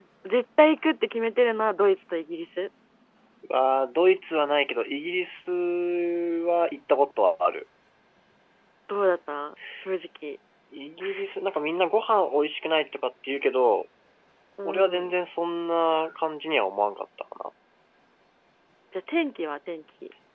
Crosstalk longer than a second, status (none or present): none